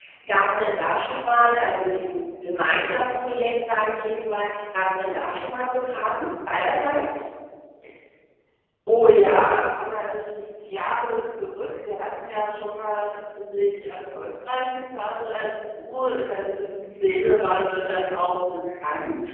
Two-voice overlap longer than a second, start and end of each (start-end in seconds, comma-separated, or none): none